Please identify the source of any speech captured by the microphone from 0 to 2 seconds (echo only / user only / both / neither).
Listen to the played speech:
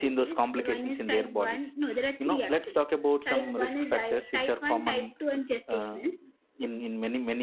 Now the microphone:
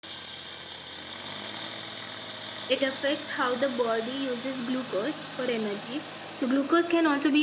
neither